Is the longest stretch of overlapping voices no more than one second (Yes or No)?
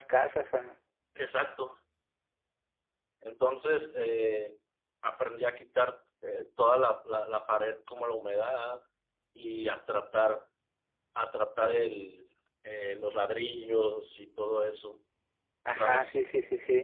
Yes